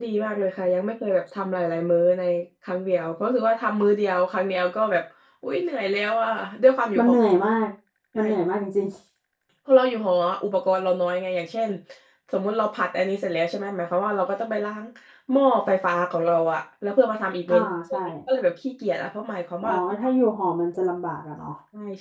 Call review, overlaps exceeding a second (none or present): none